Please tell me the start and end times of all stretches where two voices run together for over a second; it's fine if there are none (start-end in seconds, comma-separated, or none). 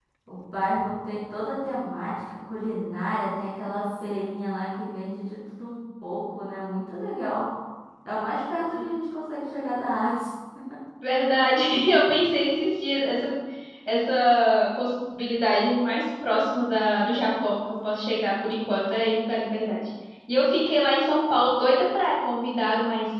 none